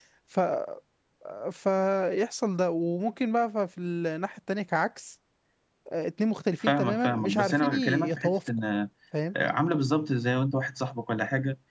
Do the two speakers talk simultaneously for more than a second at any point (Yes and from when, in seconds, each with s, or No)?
Yes, from 6.7 s